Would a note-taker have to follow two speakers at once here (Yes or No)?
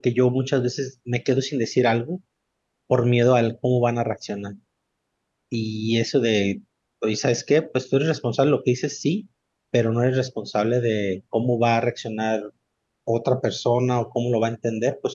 No